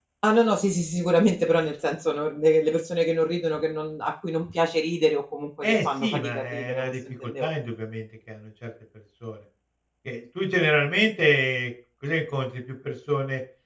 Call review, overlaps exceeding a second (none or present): present